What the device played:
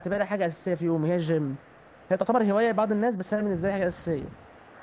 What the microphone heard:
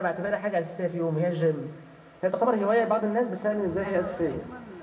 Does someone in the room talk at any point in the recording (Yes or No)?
Yes